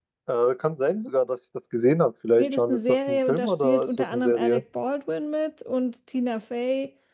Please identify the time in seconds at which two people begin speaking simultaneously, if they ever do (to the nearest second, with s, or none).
2 s